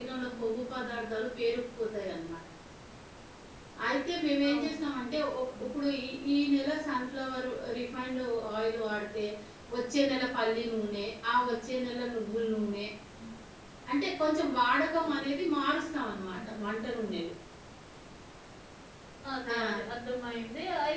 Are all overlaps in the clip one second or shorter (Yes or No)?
Yes